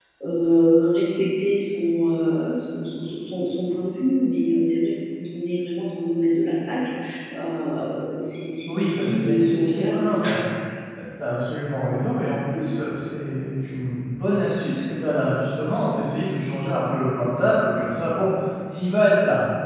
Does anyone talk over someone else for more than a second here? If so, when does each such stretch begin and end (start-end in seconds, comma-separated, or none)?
8.7-10.1